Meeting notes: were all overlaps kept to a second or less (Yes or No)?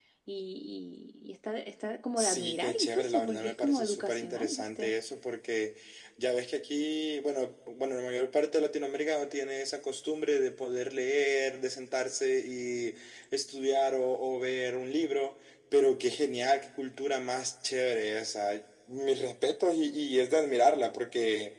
No